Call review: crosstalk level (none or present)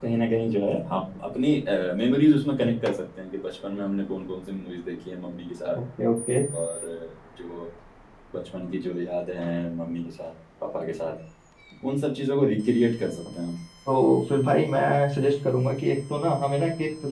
none